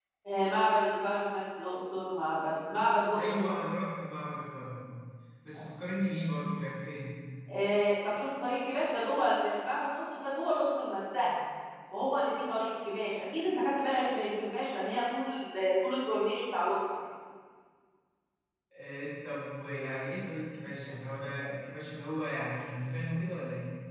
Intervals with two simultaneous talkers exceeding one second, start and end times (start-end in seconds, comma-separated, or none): none